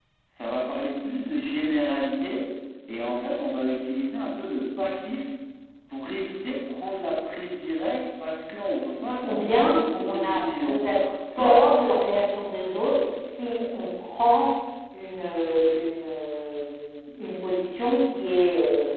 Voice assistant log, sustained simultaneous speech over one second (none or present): present